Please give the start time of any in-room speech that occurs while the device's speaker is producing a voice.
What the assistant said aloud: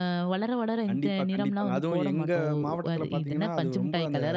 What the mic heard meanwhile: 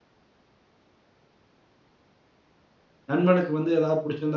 3 s

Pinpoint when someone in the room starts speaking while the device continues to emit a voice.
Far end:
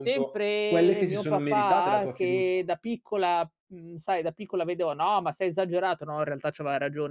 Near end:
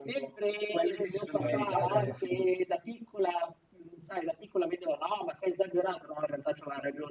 1 s

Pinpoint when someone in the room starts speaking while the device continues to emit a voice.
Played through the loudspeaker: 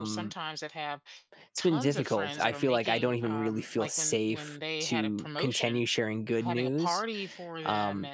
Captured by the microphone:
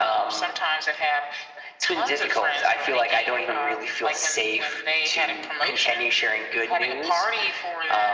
none

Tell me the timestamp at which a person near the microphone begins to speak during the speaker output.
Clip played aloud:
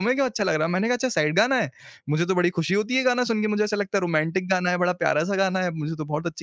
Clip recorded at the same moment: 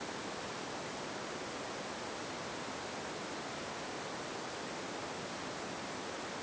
none

